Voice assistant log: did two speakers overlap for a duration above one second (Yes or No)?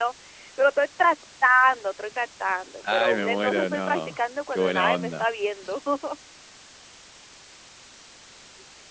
Yes